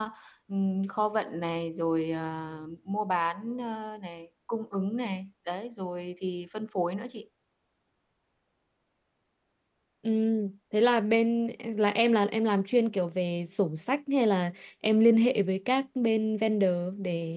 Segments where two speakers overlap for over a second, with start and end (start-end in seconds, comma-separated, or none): none